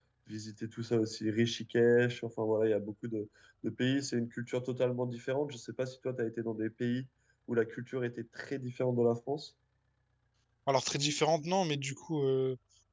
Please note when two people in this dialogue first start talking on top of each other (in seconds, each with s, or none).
none